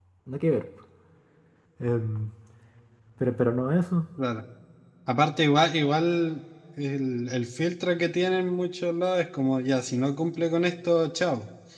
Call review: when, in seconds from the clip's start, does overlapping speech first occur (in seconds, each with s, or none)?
none